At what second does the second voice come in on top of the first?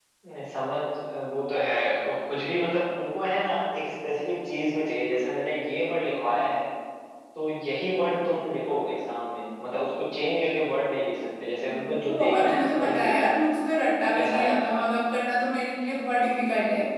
11.7 s

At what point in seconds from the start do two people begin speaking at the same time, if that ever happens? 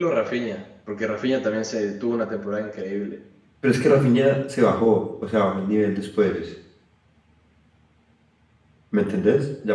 none

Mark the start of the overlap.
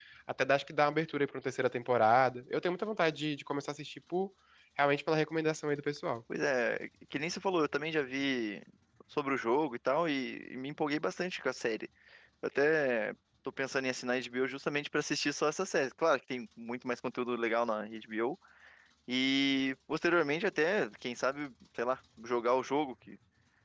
none

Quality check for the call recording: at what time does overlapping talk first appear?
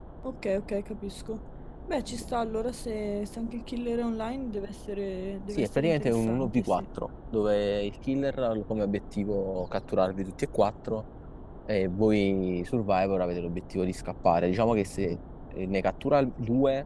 5.6 s

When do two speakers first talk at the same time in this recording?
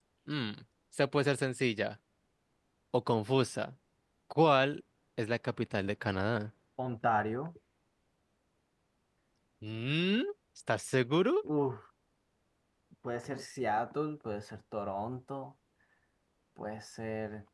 none

